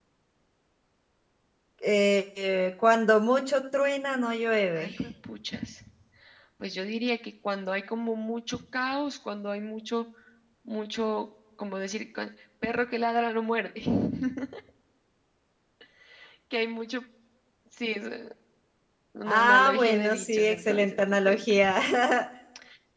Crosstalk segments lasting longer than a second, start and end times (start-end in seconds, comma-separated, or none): 19.3-21.6